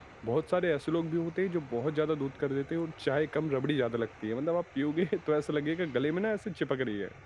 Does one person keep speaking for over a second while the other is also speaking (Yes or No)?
No